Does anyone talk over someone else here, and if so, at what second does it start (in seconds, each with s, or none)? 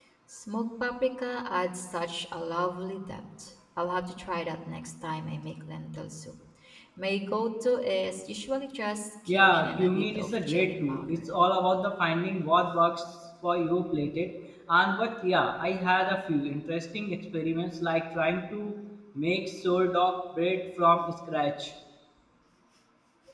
9.3 s